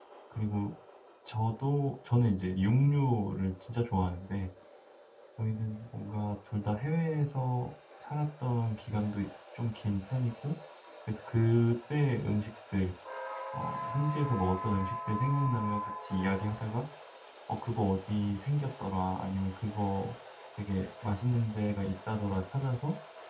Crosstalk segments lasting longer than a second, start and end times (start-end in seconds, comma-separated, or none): none